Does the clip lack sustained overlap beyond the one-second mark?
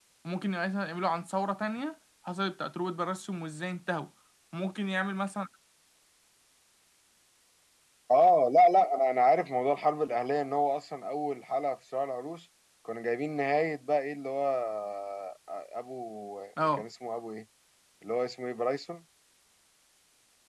Yes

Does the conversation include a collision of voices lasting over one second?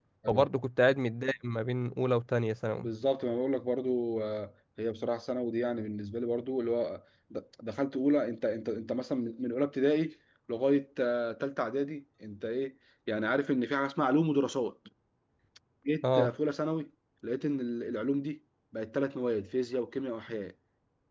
No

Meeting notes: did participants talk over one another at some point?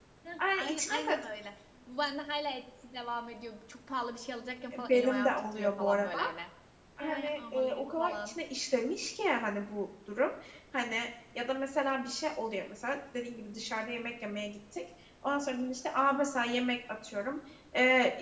Yes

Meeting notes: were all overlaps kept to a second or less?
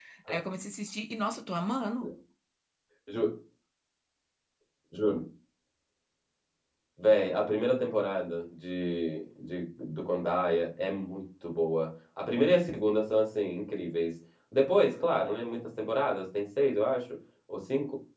Yes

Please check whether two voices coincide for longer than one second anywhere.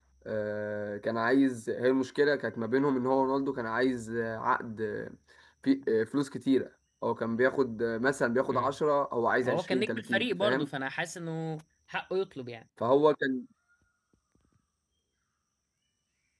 Yes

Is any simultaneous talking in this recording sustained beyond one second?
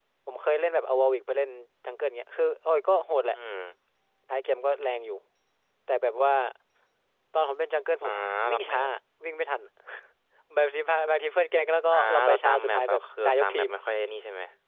Yes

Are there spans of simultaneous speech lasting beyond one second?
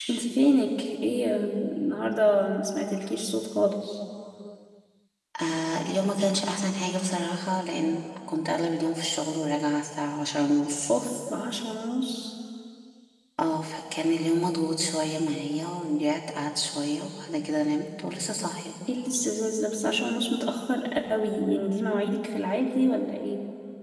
No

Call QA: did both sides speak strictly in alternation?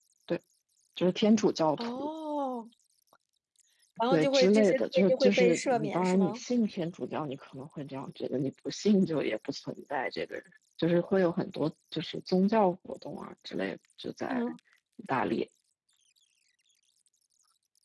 No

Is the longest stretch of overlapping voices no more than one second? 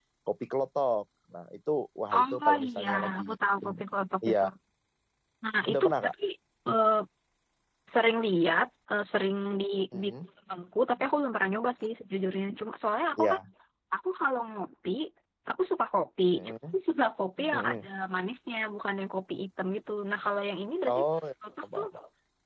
No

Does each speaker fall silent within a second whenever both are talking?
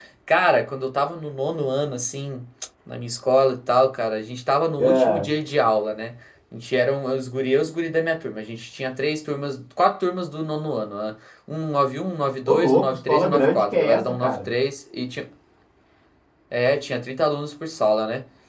No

